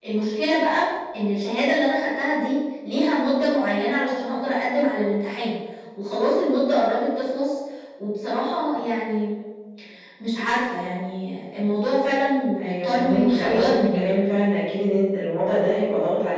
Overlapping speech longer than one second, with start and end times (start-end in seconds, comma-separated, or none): 12.6-14.0